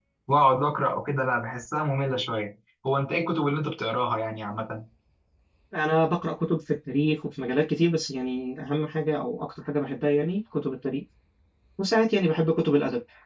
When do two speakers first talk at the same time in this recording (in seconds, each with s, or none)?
none